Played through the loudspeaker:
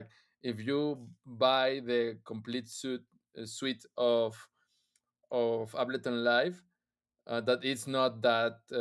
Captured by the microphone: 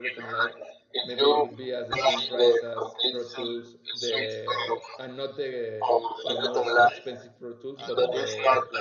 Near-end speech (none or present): present